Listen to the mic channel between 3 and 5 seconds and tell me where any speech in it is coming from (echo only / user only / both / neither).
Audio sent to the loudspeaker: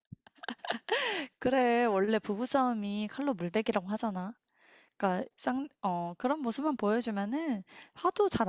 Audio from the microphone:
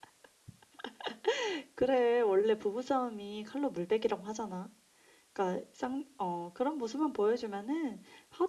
echo only